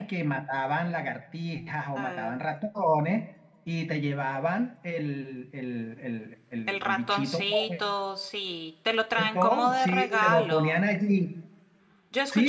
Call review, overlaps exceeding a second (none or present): present